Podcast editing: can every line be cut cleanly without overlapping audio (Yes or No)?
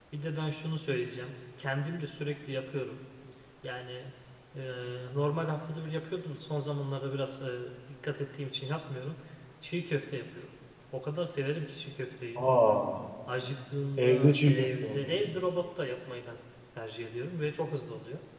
No